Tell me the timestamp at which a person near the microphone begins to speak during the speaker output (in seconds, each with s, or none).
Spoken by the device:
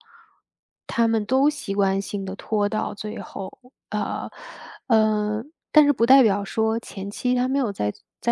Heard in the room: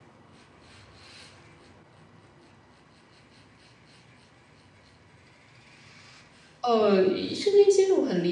6.6 s